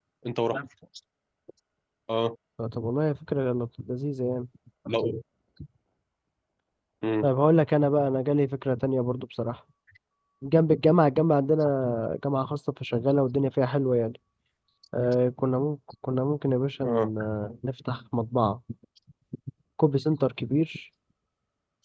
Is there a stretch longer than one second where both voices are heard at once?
No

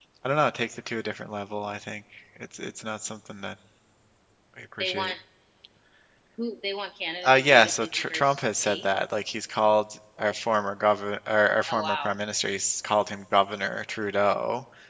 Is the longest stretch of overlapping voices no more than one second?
No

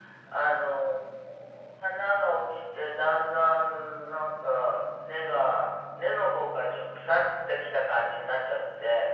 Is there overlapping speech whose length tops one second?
No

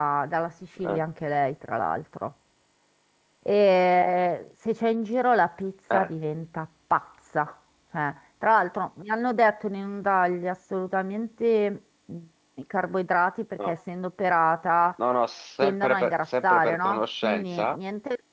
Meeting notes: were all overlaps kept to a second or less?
No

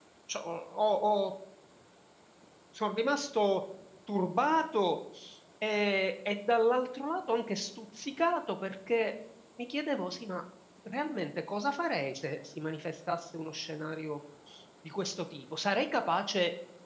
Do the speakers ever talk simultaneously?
No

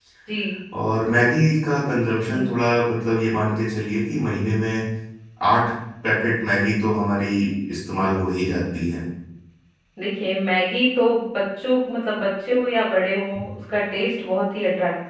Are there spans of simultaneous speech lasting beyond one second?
No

